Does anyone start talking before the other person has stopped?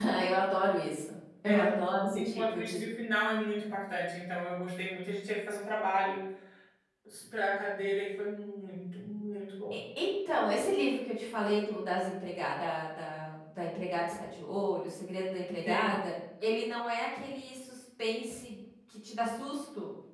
Yes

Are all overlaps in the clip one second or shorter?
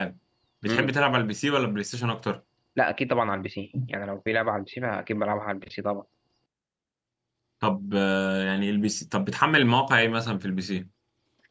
Yes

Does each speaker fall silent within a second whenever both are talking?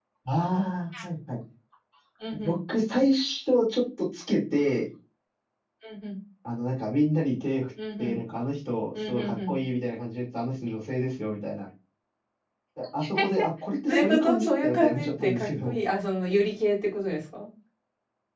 No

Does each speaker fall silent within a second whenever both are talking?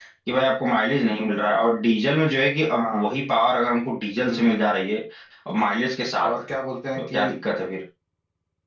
Yes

